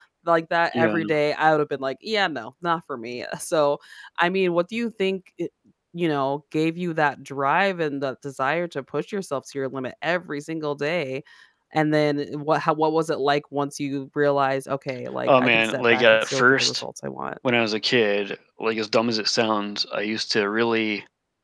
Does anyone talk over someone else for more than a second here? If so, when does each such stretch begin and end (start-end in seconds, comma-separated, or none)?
15.3-16.8